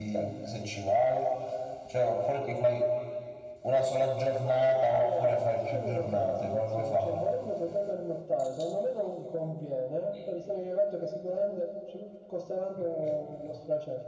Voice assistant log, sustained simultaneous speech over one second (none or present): present